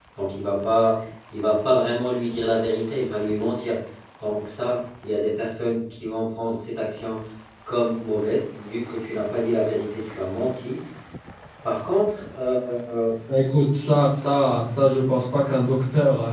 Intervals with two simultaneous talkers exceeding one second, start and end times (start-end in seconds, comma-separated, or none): none